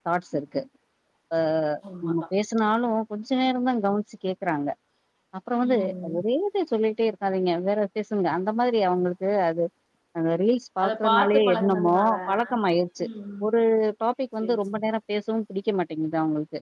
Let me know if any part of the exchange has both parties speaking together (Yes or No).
Yes